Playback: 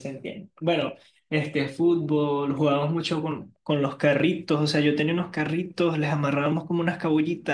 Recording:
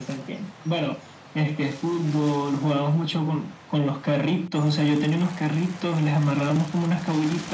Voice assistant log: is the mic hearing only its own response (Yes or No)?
Yes